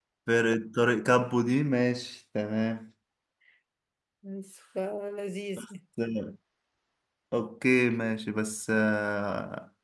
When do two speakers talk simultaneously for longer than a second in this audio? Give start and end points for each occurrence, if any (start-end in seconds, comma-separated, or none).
none